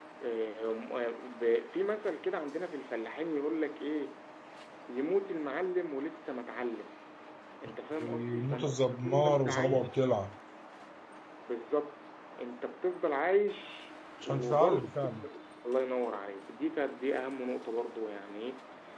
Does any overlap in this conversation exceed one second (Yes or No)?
Yes